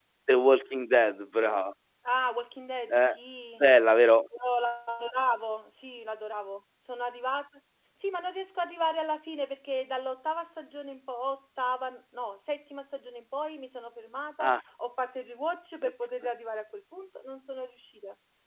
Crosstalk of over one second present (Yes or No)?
No